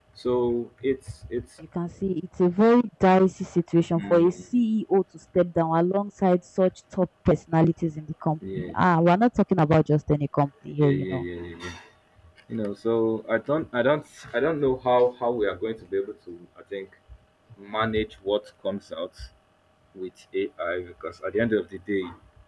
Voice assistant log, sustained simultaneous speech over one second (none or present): none